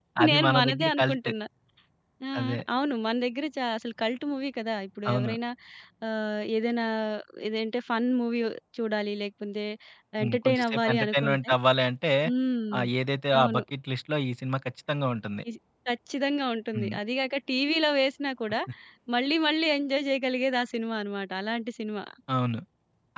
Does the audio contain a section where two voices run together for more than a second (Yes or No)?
Yes